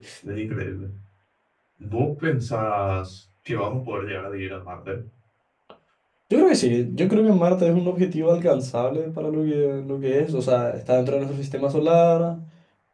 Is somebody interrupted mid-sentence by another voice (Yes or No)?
No